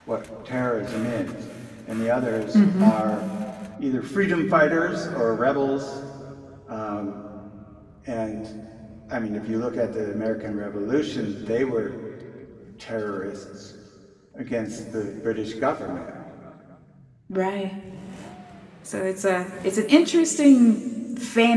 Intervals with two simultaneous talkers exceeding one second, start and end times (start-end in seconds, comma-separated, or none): none